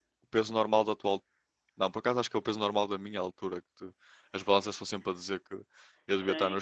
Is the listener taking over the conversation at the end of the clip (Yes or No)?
Yes